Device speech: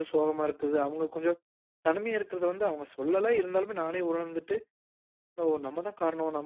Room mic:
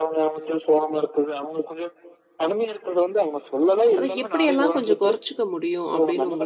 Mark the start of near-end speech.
4.0 s

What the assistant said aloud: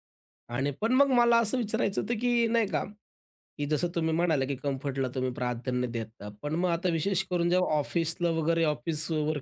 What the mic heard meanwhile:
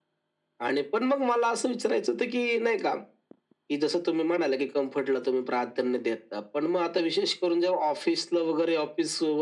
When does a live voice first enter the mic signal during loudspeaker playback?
none

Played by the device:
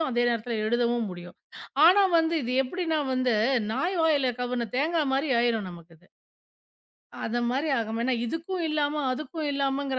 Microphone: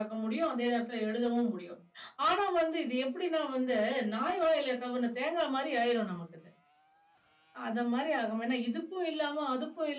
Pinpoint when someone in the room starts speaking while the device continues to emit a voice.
none

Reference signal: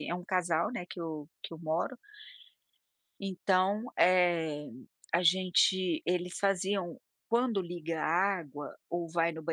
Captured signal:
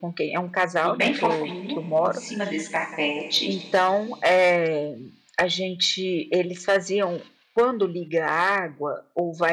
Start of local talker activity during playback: 0.8 s

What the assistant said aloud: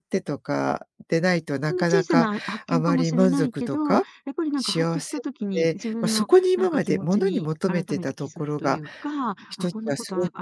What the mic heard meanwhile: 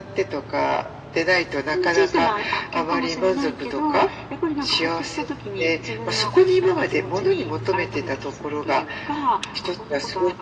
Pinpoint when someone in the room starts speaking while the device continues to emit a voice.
none

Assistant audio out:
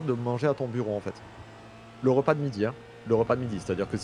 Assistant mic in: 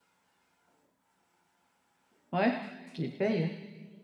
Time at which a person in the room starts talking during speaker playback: 2.3 s

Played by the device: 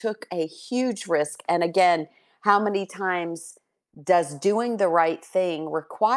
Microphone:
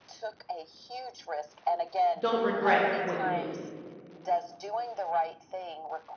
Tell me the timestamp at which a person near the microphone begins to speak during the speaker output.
2.2 s

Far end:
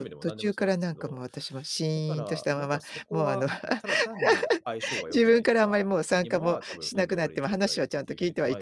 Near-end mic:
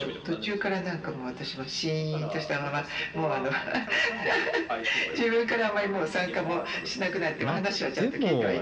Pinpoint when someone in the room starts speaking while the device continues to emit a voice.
7.4 s

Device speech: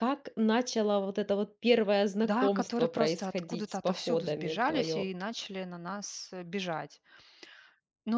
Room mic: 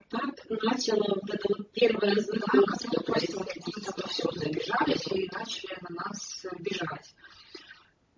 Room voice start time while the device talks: none

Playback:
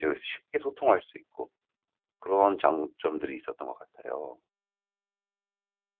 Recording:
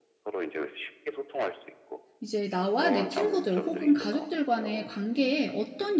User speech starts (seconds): 2.2 s

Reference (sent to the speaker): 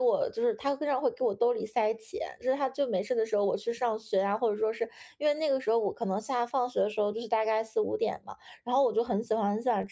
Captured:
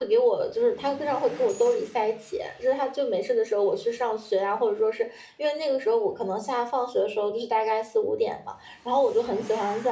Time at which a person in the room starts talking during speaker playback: none

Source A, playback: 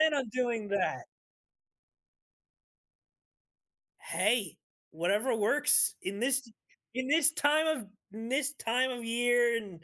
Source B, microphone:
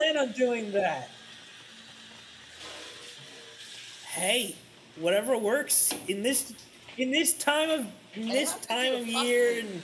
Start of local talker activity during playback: 8.3 s

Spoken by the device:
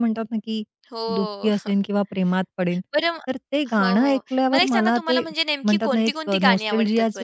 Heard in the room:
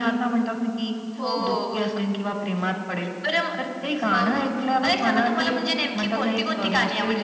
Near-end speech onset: 1.2 s

